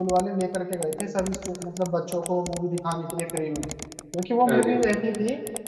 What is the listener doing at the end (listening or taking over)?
listening